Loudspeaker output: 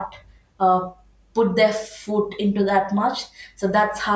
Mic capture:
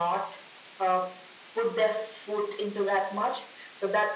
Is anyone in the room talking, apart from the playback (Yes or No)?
No